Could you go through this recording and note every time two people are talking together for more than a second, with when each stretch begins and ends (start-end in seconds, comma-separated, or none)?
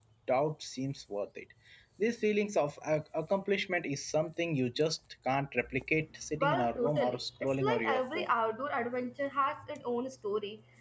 6.4-8.3